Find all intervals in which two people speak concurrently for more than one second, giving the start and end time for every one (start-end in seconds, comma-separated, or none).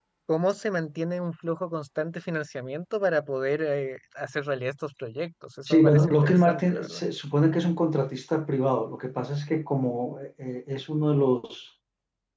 5.7-7.0